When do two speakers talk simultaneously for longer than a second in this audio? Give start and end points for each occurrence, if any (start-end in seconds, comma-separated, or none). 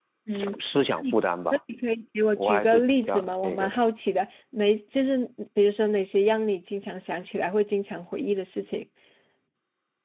2.4-3.8